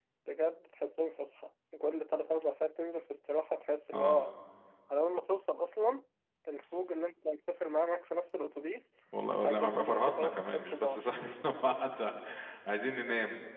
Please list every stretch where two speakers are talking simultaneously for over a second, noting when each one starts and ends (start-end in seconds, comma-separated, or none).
9.4-11.0